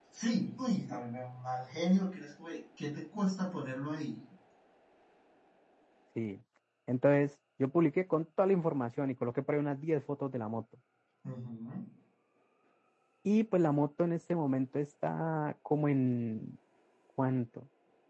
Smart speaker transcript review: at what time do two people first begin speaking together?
none

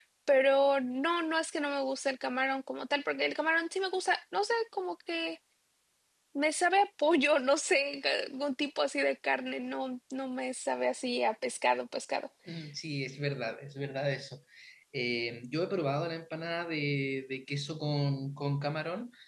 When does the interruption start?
none

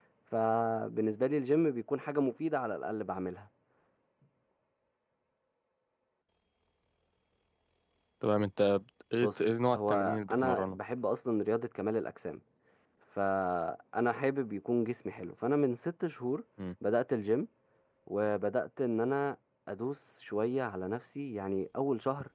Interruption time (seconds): 9.2 s

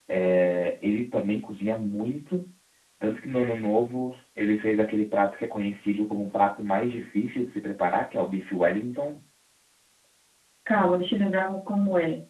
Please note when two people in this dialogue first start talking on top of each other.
none

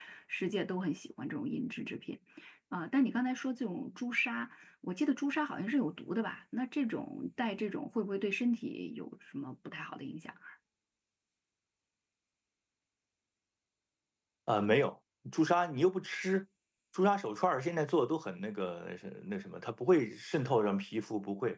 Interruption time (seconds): none

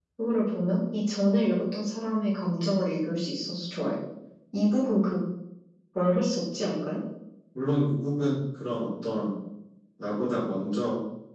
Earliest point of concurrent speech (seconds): none

